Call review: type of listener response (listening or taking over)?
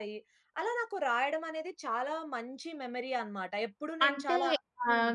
taking over